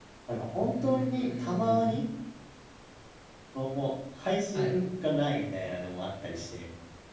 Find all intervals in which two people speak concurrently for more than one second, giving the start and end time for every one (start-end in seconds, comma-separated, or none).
0.6-2.0